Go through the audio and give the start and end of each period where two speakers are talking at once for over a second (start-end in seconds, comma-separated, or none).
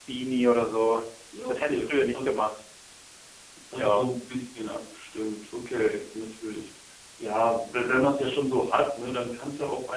none